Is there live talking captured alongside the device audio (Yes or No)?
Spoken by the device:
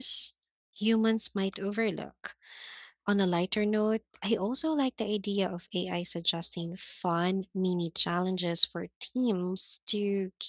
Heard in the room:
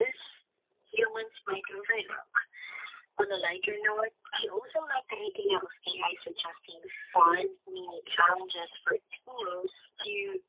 No